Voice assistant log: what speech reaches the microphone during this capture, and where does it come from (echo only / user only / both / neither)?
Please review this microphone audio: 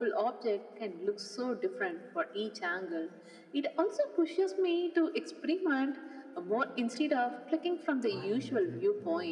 both